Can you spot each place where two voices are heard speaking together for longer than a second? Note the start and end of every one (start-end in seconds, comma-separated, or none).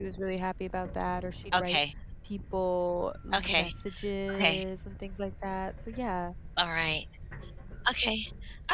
none